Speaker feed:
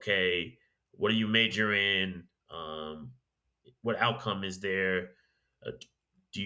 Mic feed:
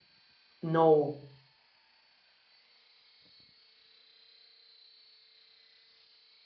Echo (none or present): none